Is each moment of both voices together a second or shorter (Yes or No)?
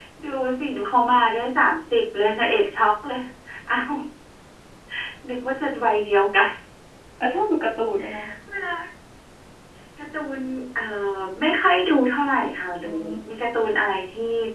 Yes